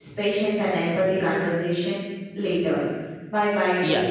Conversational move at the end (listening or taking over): taking over